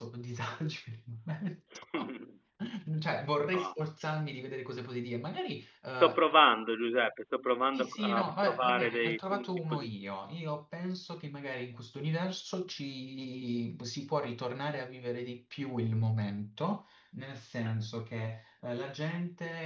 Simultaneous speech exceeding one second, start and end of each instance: 7.7-9.9

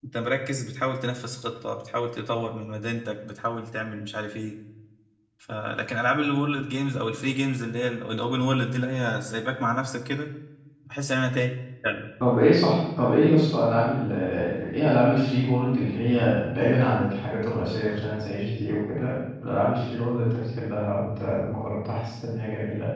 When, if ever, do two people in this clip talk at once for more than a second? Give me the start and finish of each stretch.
none

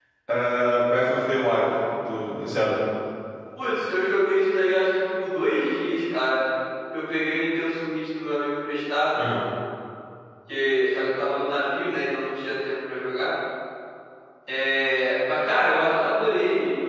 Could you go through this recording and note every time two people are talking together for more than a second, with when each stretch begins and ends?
none

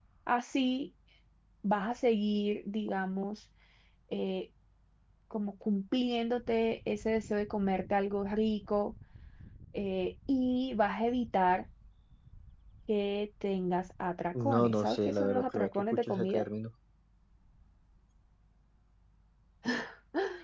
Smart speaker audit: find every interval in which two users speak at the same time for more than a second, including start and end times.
14.3-16.4

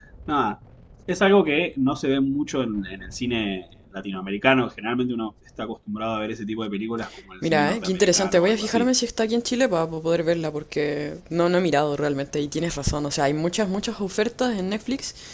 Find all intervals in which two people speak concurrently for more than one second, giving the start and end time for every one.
7.4-8.9

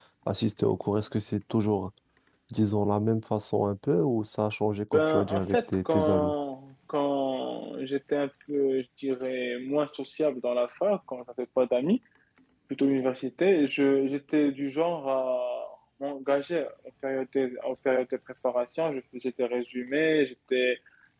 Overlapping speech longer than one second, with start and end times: 4.9-6.3

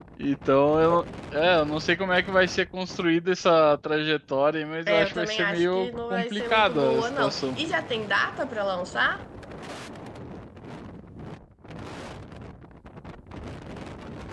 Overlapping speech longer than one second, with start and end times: 4.9-7.6

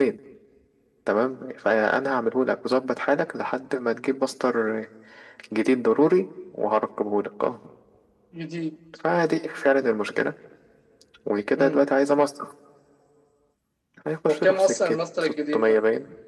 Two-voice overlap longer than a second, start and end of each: 14.3-15.8

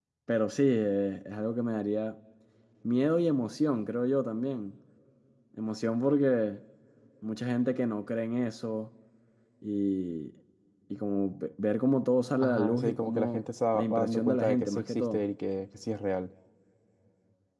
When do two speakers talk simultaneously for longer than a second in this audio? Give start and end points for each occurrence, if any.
12.4-15.2

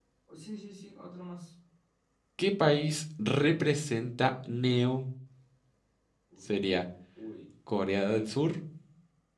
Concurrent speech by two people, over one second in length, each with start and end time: none

